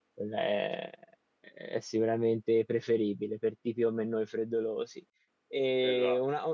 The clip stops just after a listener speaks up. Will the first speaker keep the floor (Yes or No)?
Yes